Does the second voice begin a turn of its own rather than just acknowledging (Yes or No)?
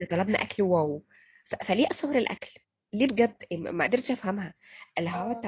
No